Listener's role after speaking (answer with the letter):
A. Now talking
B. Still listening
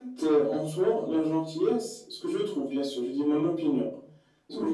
B